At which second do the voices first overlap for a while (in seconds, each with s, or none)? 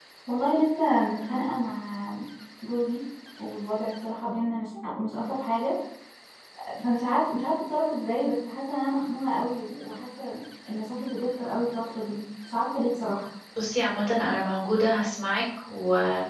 none